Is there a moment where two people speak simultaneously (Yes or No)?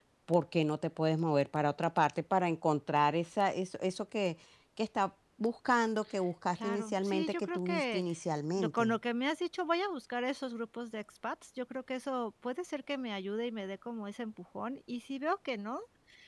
Yes